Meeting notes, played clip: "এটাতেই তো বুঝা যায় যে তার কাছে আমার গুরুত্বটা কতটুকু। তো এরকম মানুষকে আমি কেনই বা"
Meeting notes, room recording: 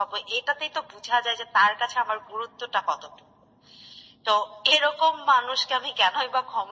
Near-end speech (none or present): none